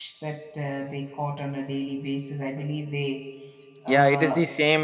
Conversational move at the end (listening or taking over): taking over